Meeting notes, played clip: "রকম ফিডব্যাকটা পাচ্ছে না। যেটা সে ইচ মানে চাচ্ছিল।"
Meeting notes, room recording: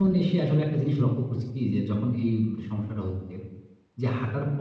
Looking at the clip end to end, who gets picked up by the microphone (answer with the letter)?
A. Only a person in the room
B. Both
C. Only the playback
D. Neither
A